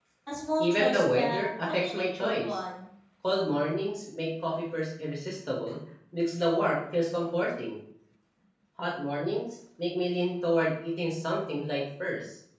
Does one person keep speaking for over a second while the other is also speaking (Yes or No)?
Yes